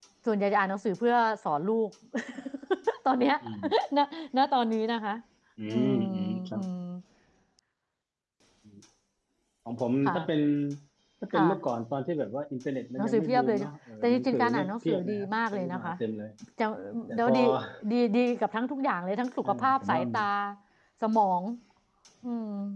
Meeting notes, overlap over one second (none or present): present